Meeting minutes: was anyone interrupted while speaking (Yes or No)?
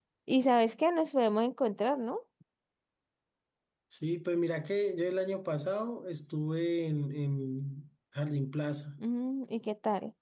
No